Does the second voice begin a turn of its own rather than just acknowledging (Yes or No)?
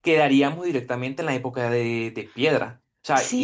No